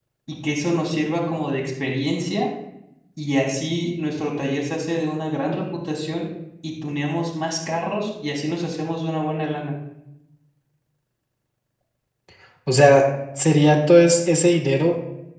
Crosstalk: none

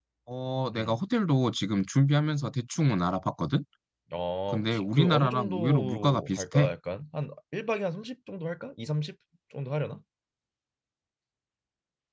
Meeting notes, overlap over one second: present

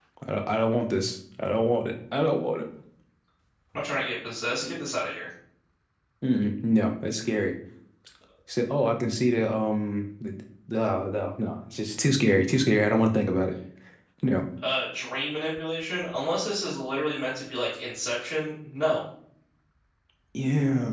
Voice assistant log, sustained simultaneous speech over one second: none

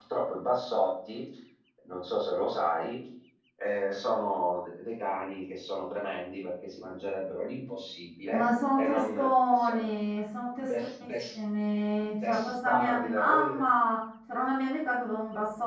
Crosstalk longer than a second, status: present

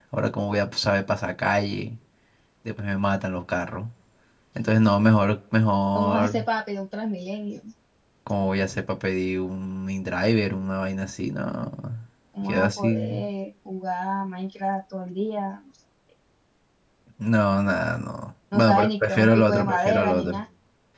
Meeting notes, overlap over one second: present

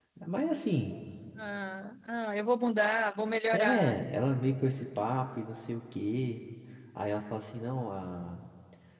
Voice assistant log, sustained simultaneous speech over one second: none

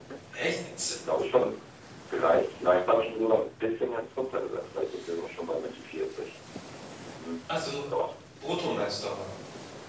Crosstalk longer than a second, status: none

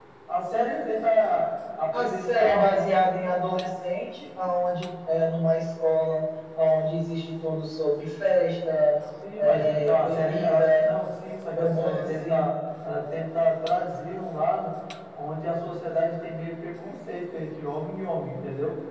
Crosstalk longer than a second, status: present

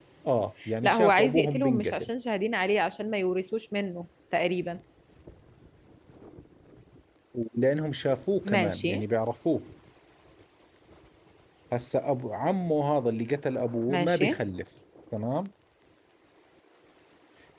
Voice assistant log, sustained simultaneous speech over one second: present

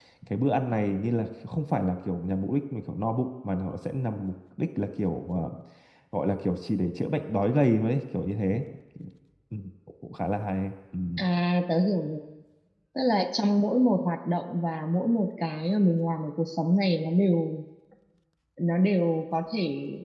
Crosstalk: none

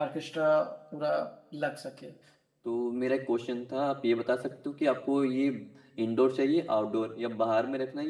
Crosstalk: none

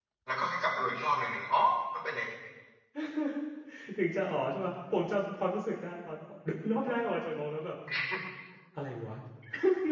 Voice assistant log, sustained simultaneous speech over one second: none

